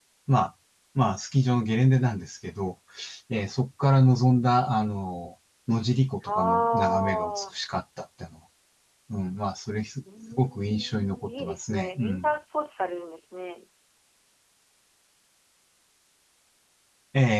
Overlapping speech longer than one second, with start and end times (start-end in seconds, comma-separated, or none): 6.3-7.5, 10.3-12.3